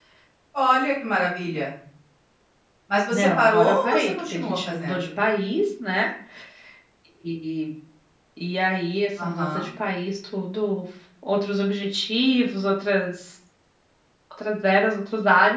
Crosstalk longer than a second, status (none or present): present